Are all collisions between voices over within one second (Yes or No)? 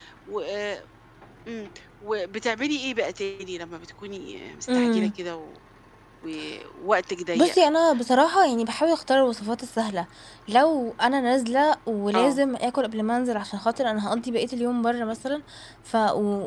Yes